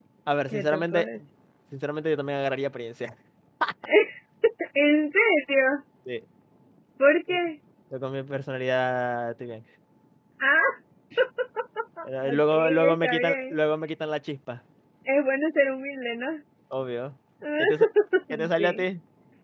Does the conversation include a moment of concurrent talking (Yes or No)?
Yes